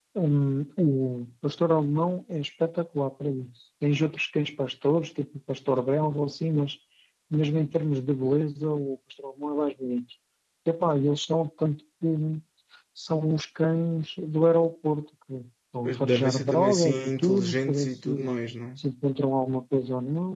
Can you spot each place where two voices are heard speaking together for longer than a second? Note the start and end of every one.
15.8-18.1

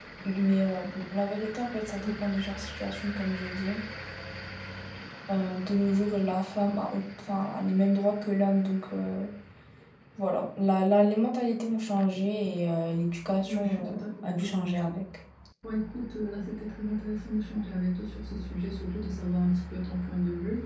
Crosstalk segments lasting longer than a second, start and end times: 13.4-15.0

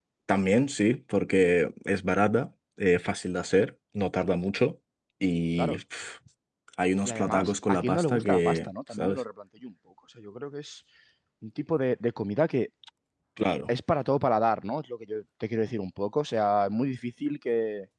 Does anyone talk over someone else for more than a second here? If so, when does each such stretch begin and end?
7.0-9.2

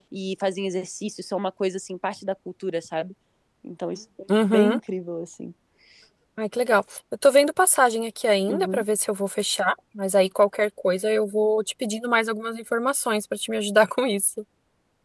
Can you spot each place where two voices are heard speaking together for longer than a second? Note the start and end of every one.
none

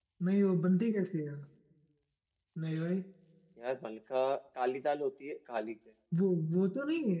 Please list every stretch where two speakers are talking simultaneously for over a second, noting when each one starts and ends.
none

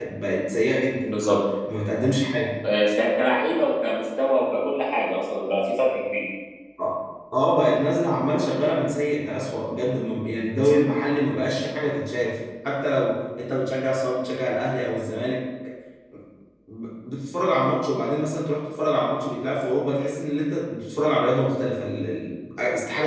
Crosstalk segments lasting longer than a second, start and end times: none

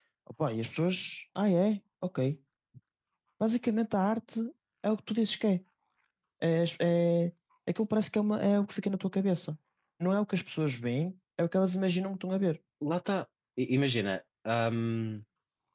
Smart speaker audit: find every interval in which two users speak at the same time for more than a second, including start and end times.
none

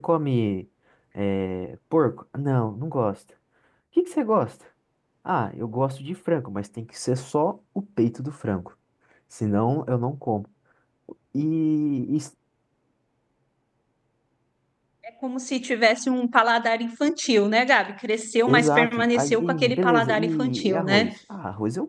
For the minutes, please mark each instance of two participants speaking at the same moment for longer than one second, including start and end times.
18.5-21.1

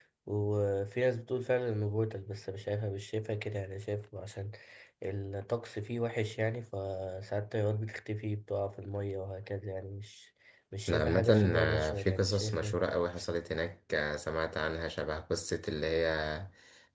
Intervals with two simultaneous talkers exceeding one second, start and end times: 10.9-12.8

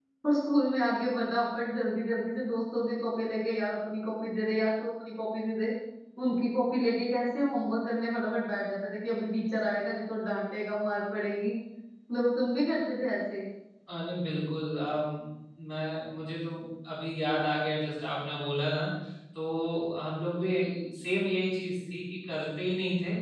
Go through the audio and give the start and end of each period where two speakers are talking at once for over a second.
none

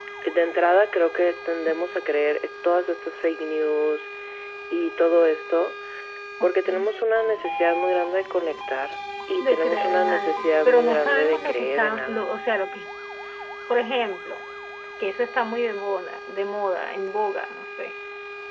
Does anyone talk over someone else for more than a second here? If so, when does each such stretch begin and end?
9.4-12.3

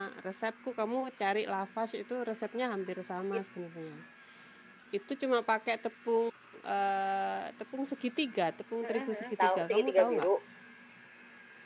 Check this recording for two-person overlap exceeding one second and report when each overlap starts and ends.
8.8-10.3

